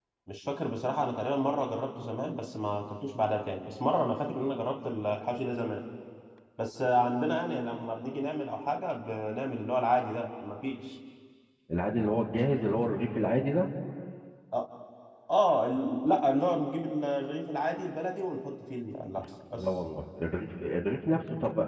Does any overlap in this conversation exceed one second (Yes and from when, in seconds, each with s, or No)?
No